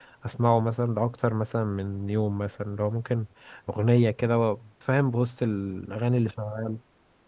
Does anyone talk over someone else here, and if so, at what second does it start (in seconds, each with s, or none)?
none